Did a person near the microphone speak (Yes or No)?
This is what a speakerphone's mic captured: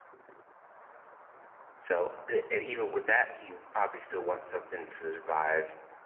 Yes